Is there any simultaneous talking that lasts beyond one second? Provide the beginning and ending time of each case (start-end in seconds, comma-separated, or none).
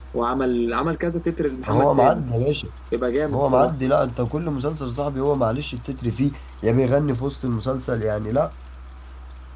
none